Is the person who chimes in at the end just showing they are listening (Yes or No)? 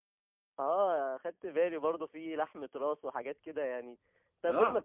Yes